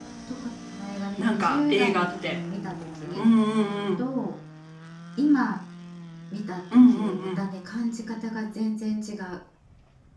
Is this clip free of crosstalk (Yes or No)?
No